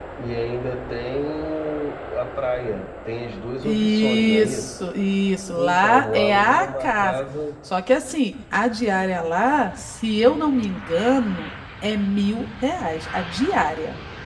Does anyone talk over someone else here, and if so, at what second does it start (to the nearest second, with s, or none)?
4 s